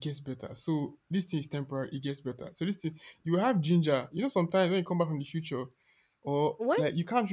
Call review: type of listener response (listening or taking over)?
listening